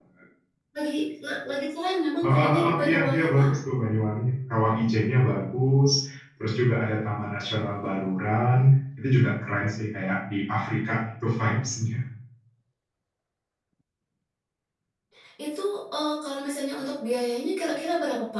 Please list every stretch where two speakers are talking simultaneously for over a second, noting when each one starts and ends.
2.2-3.5

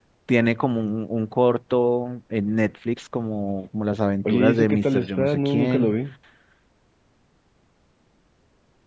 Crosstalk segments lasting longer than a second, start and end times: 4.2-6.0

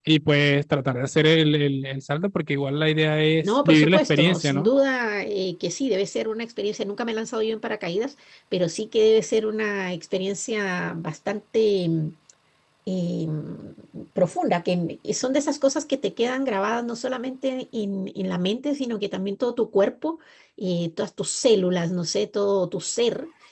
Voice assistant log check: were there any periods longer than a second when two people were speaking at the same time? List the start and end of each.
3.4-4.7

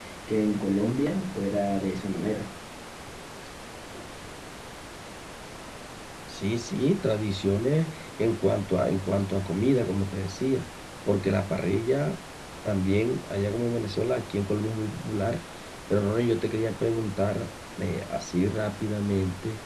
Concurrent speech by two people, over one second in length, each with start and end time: none

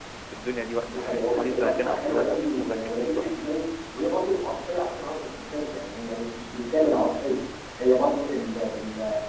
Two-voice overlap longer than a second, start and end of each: 0.9-3.2

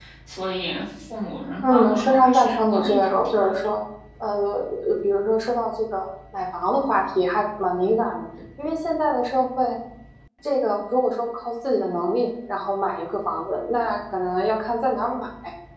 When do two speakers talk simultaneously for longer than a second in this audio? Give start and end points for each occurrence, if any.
1.6-3.5

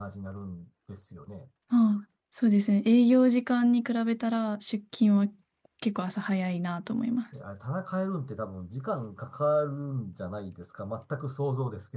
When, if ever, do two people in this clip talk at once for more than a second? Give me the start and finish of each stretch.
none

